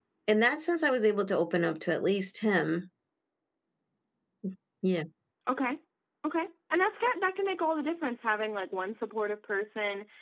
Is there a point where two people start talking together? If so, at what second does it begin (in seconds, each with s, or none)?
none